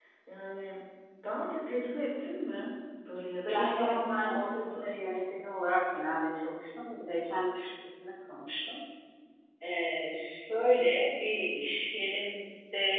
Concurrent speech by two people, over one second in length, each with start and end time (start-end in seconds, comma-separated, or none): 3.5-4.9